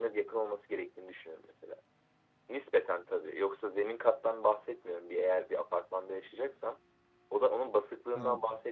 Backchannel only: Yes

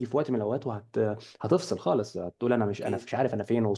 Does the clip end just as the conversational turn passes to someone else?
No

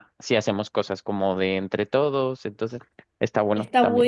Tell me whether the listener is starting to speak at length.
Yes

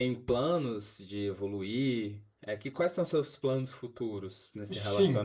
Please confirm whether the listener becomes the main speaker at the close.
Yes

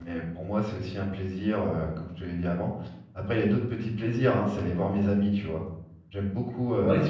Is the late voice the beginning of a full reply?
No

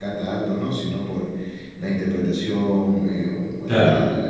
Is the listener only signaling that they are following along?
Yes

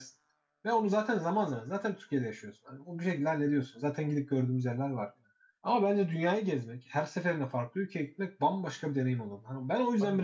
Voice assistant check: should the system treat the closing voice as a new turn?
Yes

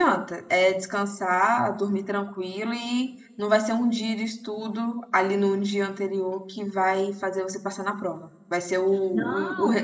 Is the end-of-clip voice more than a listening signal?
No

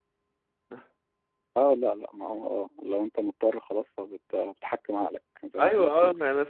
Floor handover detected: Yes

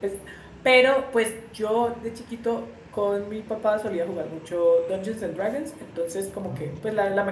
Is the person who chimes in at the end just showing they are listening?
Yes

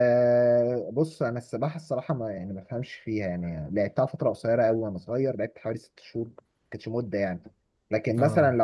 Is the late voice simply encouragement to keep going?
Yes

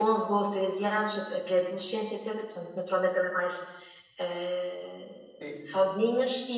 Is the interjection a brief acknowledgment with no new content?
Yes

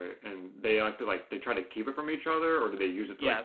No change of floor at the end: No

